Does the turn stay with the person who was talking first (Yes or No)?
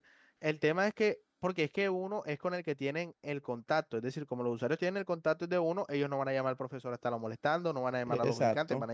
No